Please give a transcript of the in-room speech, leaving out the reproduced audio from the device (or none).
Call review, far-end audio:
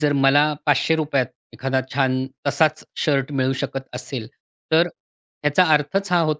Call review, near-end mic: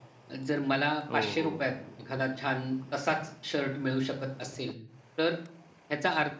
हो, हो.